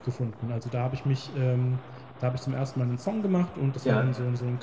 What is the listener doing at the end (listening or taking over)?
listening